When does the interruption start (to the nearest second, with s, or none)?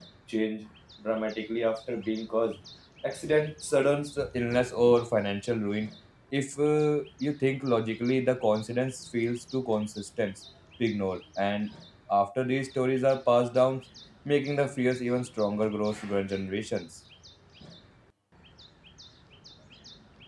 none